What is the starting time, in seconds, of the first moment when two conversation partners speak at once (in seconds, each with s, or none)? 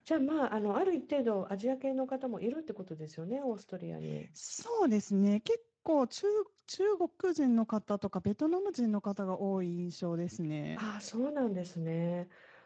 none